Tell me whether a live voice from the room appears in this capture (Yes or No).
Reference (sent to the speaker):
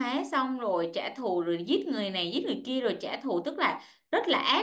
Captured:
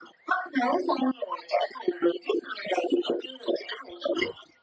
No